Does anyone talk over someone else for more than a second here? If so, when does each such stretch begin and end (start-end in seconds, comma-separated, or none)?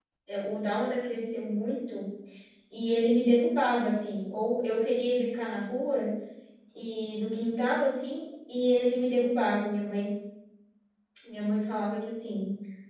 none